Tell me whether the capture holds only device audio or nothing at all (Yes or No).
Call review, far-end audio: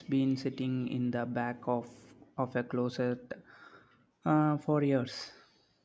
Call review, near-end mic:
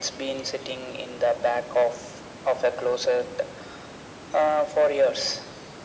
Yes